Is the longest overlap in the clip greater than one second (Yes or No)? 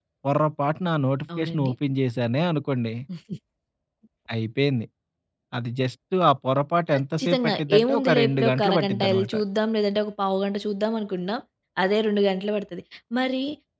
Yes